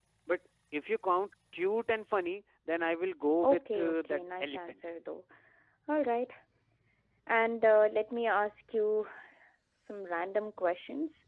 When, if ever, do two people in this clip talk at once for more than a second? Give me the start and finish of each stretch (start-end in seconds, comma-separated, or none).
3.4-4.7